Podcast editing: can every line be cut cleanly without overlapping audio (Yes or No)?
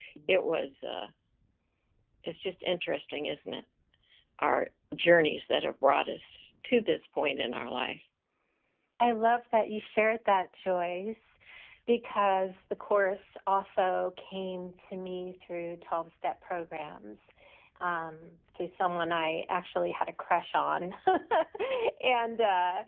Yes